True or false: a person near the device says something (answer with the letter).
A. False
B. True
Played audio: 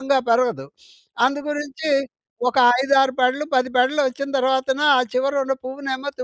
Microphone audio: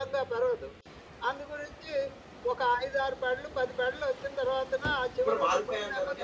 B